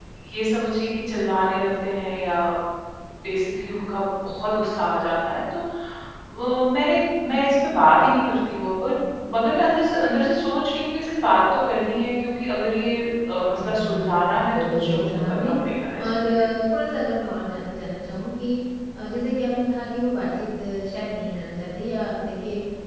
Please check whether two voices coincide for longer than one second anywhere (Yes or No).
Yes